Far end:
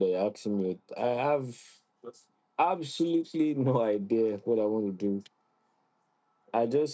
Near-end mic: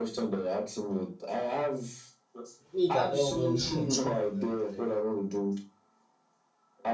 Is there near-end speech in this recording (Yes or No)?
Yes